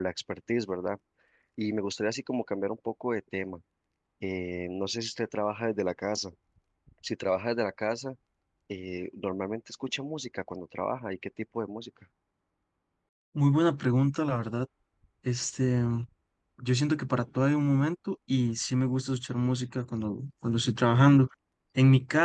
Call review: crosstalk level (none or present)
none